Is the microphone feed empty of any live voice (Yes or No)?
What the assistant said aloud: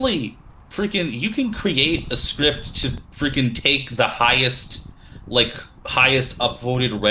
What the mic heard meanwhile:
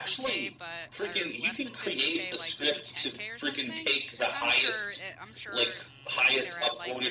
No